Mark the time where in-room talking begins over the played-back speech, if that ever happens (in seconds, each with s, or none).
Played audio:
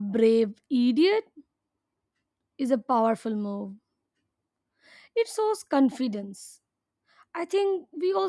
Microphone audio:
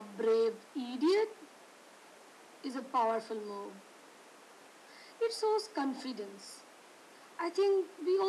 none